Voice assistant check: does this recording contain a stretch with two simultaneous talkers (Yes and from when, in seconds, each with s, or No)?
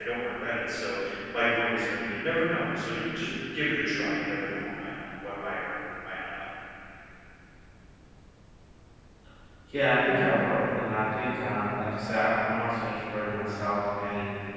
No